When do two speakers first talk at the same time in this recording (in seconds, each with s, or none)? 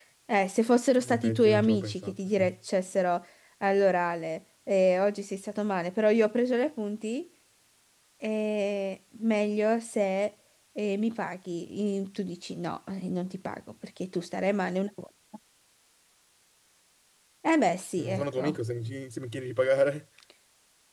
1.0 s